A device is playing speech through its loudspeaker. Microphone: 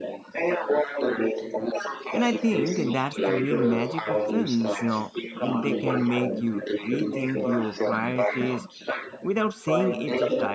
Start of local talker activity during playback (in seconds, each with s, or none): 2.1 s